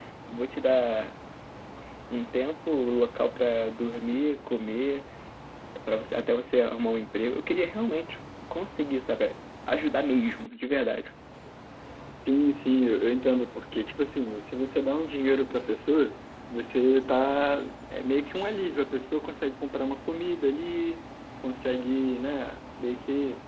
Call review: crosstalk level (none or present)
none